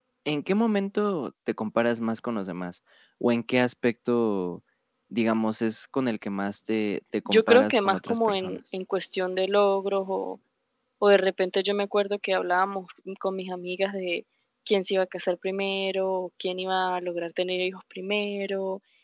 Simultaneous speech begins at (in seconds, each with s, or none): 7.2 s